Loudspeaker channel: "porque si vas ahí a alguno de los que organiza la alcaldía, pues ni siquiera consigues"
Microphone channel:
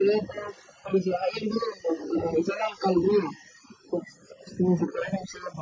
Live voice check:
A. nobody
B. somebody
A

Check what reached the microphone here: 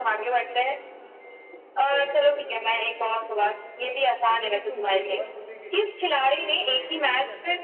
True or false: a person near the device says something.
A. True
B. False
A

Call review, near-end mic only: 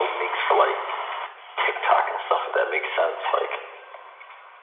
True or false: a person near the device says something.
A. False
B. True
A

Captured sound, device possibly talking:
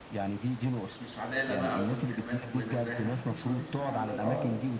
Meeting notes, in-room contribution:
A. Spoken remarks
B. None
A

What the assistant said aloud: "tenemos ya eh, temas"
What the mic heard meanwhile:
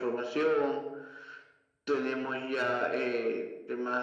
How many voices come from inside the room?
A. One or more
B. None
B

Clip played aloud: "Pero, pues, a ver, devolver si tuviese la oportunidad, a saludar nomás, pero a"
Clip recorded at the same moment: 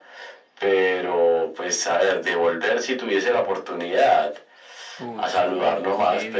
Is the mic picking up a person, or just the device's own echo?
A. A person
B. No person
A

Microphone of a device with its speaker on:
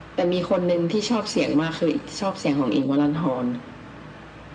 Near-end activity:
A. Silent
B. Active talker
A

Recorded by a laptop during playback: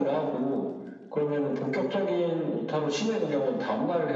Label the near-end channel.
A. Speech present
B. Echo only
B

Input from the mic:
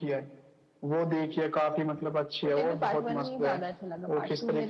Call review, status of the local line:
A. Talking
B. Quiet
B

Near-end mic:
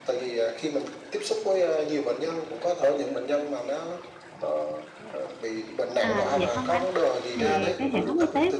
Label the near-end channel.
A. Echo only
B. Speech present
B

